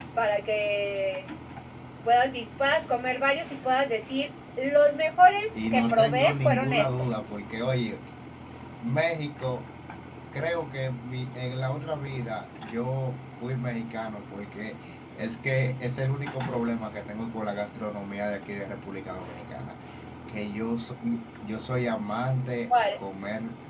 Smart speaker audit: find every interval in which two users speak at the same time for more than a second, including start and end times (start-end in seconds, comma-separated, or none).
5.5-7.1